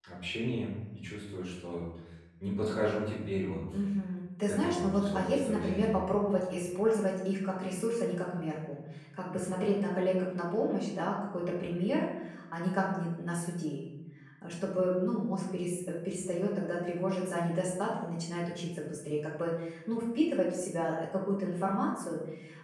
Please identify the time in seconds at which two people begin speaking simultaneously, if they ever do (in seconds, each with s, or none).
4.5 s